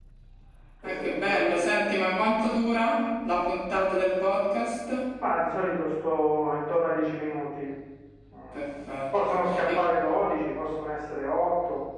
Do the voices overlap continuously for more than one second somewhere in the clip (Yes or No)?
Yes